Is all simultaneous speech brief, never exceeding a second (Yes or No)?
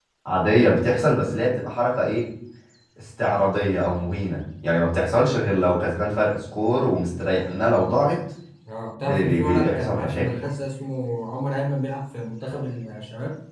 No